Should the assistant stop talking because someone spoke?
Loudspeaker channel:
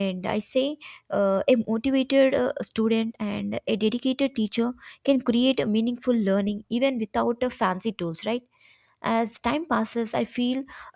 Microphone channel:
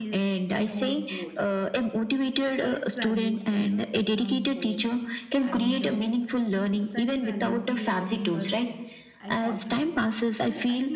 Yes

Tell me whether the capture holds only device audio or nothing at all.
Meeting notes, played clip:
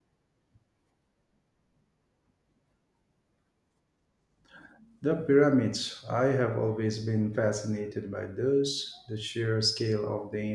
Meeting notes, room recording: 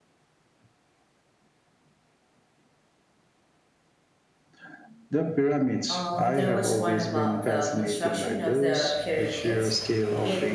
No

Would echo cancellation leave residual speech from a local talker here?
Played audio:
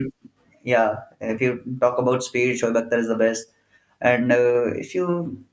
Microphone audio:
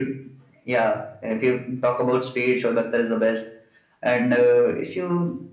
No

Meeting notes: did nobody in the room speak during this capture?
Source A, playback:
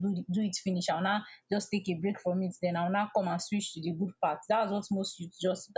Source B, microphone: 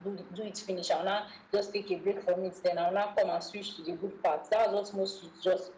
Yes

